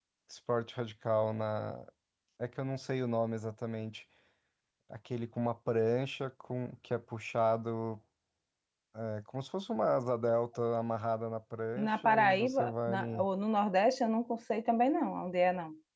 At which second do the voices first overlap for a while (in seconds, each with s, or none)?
11.8 s